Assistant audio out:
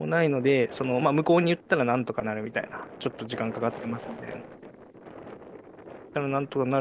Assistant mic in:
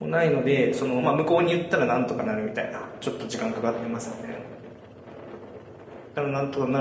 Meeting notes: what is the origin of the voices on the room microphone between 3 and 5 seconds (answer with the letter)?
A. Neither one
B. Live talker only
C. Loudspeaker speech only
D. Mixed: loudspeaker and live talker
C